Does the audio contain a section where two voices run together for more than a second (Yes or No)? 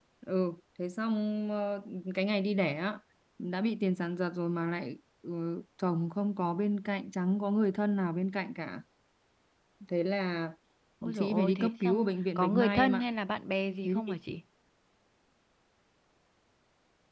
Yes